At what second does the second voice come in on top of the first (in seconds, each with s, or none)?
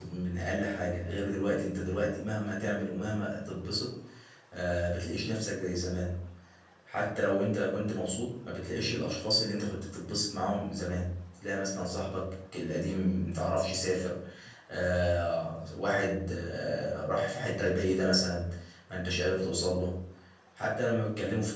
none